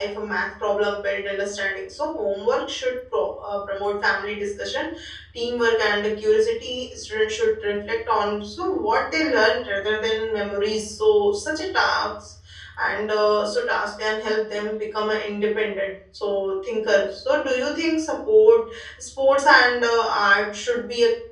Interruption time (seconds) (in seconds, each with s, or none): none